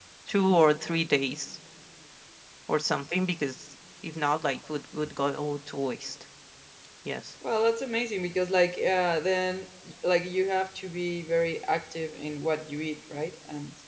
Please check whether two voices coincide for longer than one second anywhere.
No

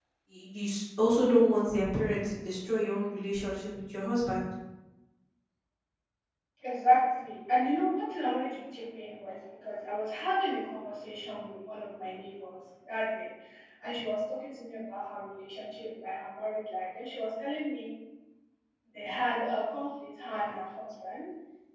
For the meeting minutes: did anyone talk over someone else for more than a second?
No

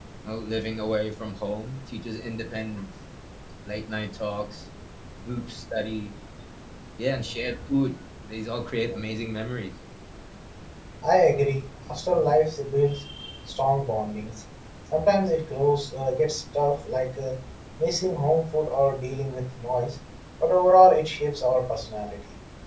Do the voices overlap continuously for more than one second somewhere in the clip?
No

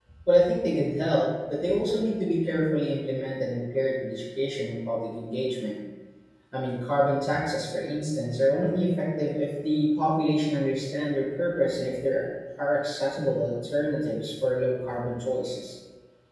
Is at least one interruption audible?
No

